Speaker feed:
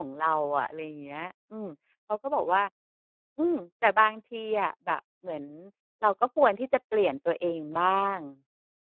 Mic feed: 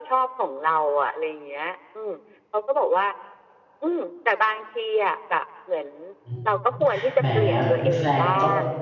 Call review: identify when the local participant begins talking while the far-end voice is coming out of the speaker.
6.2 s

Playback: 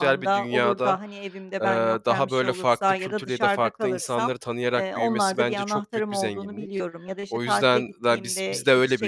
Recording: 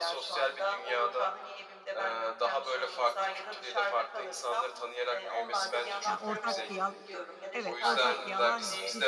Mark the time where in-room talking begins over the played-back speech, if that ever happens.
6.0 s

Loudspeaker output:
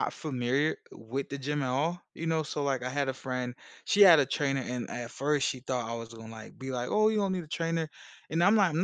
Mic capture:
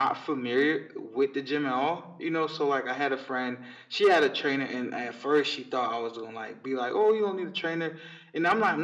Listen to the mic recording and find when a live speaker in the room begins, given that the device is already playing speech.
none

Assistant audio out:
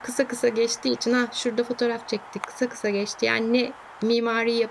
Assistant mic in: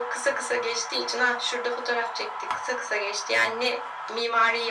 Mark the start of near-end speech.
none

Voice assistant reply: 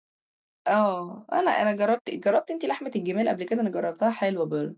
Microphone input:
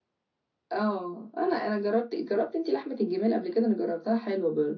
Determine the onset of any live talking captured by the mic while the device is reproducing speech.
none

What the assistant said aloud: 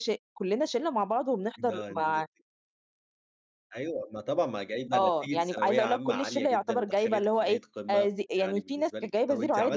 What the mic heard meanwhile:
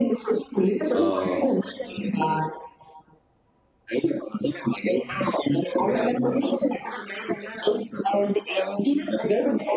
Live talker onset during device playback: 0.9 s

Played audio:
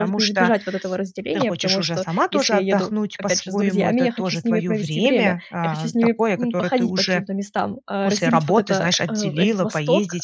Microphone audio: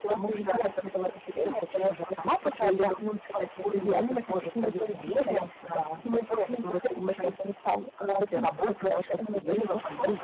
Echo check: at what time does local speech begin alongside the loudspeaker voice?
none

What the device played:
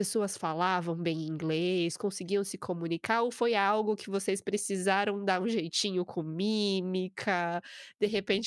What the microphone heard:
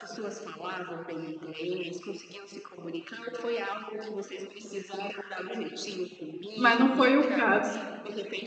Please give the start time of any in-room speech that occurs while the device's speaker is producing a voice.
6.6 s

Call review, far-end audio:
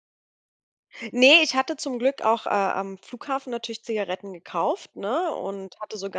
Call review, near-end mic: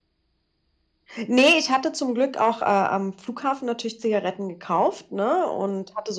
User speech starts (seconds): none

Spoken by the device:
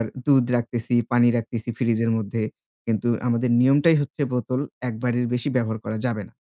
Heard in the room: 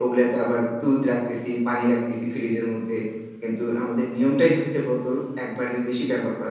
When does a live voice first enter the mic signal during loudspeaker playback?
none

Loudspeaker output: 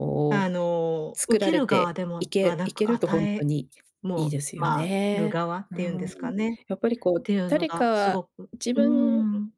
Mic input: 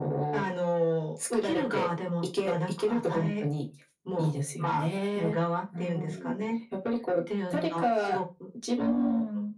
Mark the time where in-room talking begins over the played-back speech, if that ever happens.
none

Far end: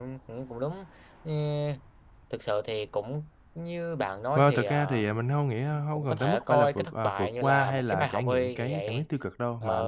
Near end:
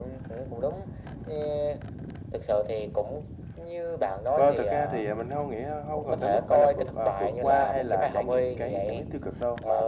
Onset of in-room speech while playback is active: none

